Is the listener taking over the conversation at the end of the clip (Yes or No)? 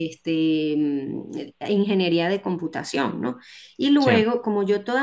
No